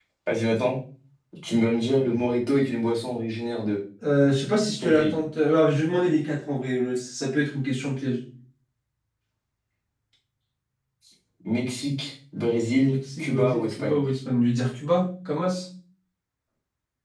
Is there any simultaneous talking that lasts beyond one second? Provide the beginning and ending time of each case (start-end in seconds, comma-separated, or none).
12.8-14.0